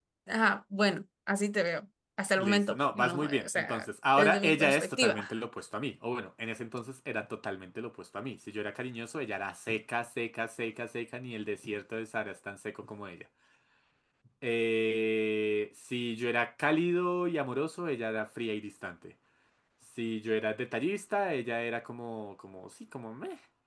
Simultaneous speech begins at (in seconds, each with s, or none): 2.4 s